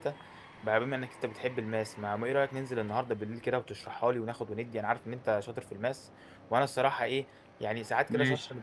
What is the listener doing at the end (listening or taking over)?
listening